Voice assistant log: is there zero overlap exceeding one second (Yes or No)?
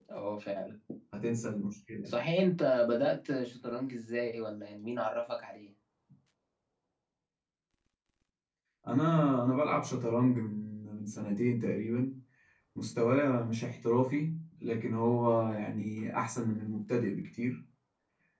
Yes